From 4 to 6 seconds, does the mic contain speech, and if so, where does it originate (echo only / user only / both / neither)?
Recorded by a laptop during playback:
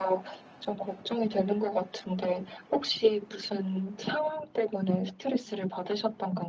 echo only